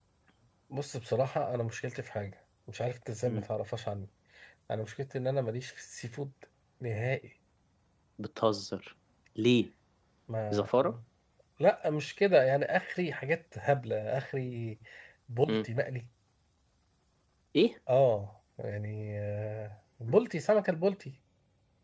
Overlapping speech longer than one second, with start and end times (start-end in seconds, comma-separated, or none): none